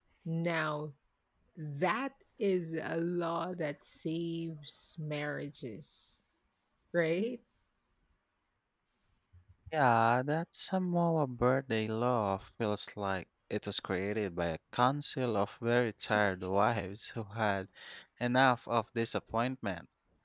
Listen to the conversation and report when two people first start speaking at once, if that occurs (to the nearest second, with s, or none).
none